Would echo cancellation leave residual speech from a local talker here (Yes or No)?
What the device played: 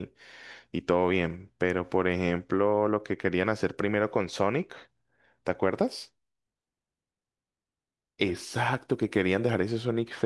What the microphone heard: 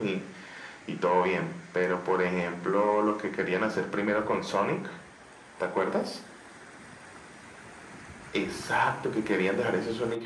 No